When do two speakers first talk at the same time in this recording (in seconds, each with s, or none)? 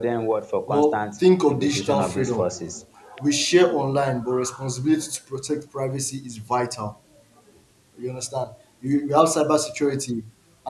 0.7 s